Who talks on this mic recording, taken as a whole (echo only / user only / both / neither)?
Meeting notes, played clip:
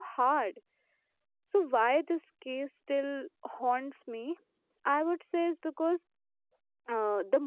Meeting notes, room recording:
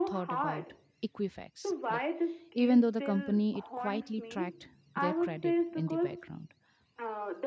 both